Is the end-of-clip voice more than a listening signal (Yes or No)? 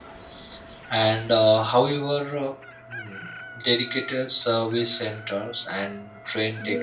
Yes